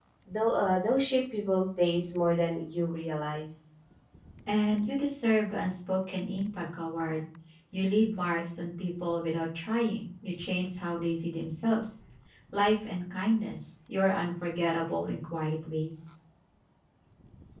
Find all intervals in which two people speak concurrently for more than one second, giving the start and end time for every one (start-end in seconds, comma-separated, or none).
none